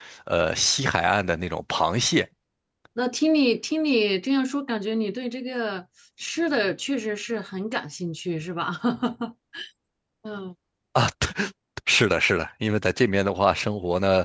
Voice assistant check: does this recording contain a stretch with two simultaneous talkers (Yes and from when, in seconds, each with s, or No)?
No